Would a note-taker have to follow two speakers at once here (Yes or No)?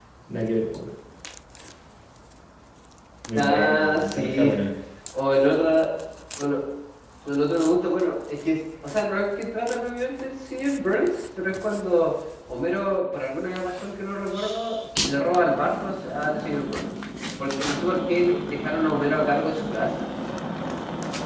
Yes